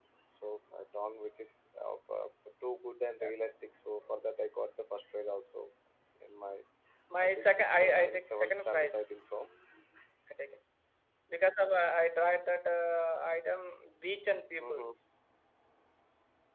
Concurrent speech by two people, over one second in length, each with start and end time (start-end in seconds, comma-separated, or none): 7.2-9.0